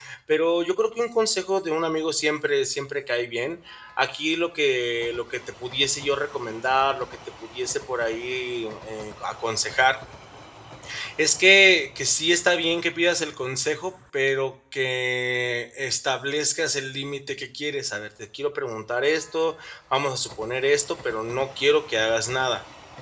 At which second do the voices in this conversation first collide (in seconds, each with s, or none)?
none